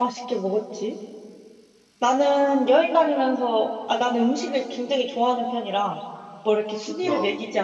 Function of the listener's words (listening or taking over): listening